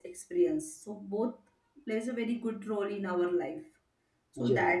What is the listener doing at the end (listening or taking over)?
listening